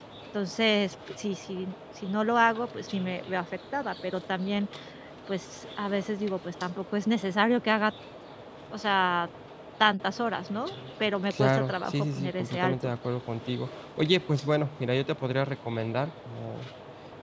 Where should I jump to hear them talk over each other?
11.3 s

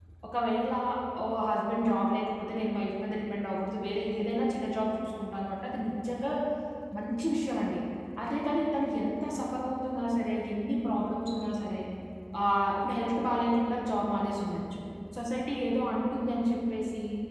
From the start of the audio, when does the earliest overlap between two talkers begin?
none

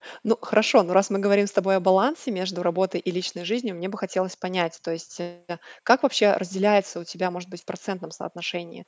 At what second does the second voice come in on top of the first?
none

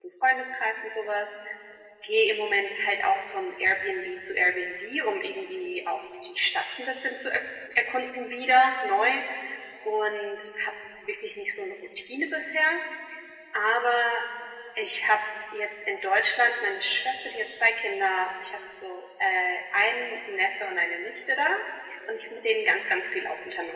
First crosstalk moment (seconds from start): none

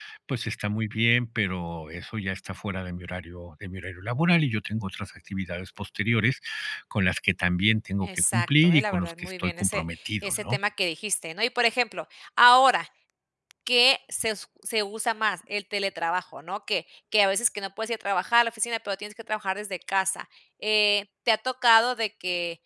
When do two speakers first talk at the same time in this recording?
8.0 s

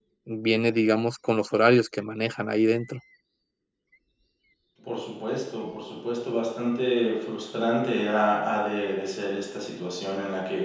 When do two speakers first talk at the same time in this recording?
none

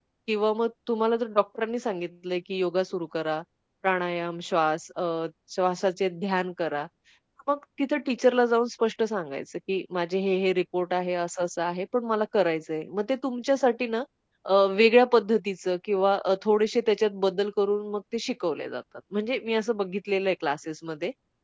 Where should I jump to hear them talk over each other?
none

